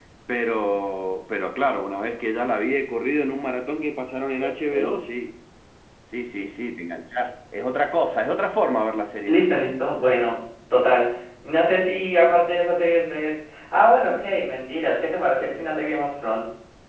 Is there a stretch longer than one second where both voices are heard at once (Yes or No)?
No